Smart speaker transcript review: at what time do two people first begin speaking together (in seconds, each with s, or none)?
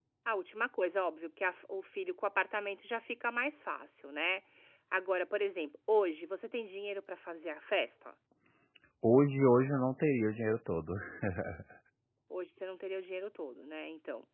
none